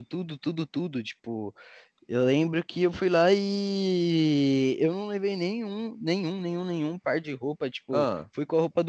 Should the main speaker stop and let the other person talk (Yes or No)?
No